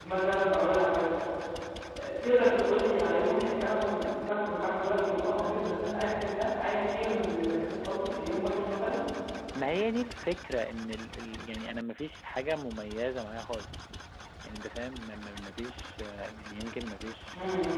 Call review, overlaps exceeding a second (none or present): none